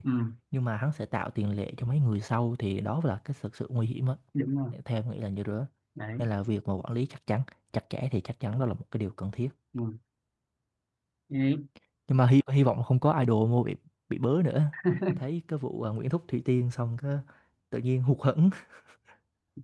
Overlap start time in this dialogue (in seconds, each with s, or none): none